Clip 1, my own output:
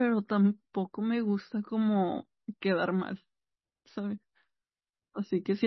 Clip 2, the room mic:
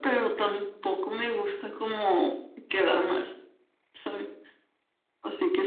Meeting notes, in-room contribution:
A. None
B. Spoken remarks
A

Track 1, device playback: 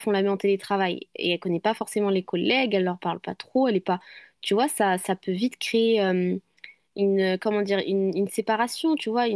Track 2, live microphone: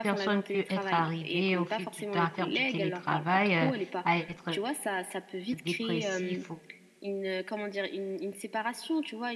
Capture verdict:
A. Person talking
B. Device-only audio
A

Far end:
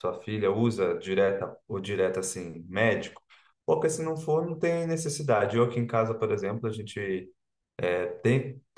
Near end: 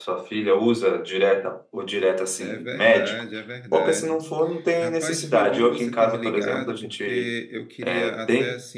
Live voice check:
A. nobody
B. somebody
B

